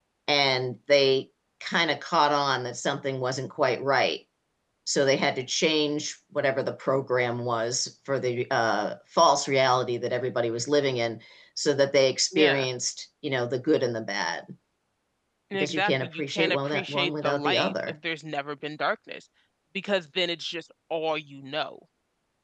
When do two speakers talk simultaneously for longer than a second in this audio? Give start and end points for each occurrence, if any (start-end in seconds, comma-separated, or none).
15.5-17.7